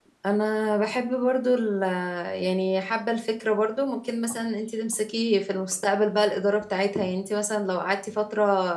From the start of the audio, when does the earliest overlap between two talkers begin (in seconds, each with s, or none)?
none